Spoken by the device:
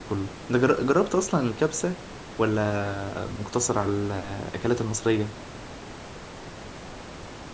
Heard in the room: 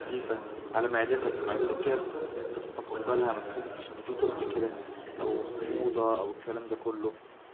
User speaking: Yes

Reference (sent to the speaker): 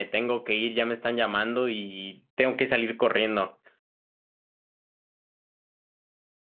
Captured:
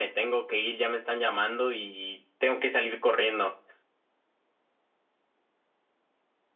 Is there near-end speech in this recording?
No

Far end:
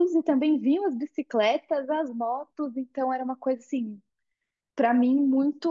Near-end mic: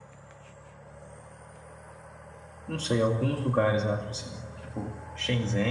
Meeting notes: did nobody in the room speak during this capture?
No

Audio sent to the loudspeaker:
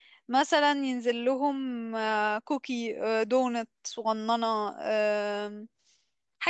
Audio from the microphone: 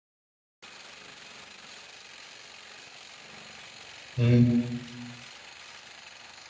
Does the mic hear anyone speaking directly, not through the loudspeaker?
Yes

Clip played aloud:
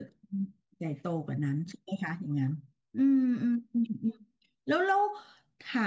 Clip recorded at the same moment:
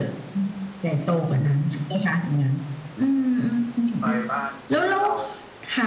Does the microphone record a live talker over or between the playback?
Yes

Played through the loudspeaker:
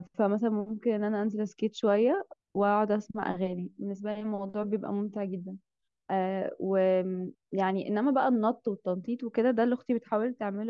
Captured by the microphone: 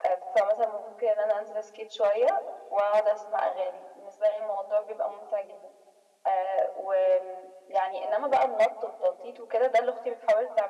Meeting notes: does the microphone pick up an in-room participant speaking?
No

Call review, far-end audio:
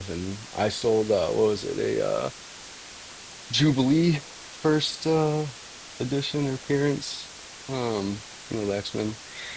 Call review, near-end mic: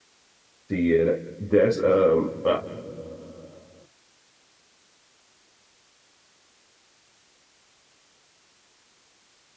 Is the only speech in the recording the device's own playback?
No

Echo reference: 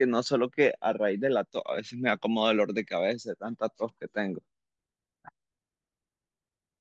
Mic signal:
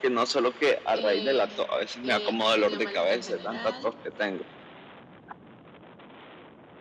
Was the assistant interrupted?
Yes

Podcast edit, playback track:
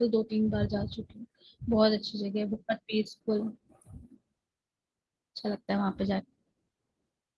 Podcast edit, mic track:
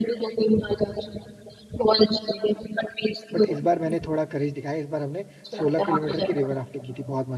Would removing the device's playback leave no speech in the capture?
No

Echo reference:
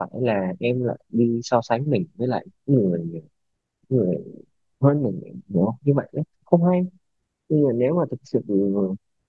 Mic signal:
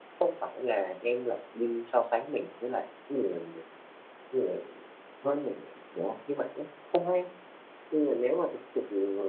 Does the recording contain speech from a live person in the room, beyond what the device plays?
No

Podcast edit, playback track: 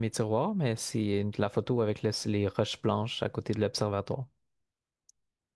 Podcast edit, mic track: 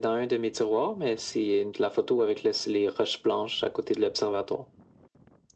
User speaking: No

